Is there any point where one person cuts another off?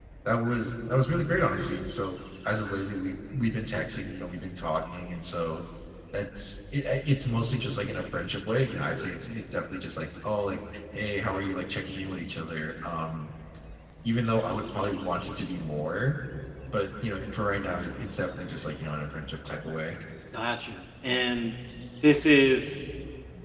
No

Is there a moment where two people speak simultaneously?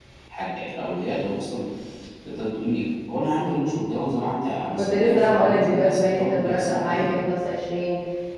Yes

